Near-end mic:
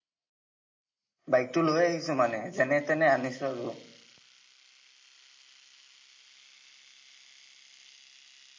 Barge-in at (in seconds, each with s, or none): 1.3 s